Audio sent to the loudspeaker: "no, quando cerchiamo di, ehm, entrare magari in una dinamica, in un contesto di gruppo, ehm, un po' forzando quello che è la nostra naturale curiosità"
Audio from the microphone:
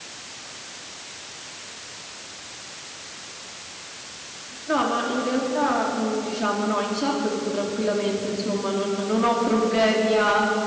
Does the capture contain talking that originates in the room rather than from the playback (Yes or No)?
Yes